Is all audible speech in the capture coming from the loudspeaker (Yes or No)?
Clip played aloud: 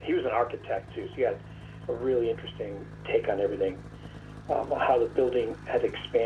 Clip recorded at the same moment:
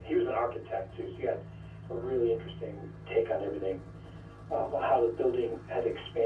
Yes